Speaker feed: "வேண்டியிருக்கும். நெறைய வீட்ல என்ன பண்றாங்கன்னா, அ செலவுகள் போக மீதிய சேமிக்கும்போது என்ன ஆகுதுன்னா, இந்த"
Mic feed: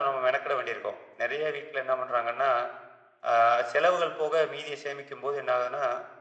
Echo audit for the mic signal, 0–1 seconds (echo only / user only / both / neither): echo only